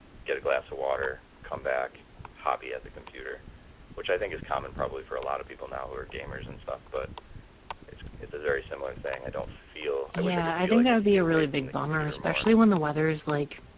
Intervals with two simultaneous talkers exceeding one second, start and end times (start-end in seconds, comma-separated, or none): 10.1-12.5